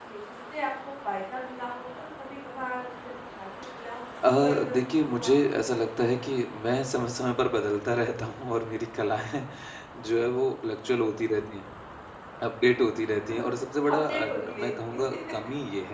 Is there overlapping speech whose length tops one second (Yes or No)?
Yes